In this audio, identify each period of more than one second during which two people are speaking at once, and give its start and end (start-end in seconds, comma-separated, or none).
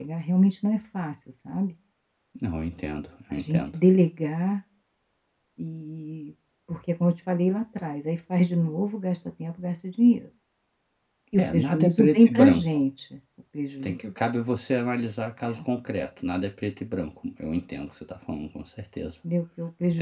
11.4-12.6